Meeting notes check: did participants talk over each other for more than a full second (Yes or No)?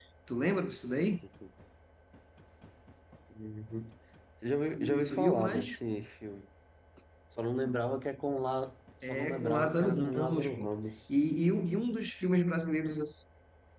Yes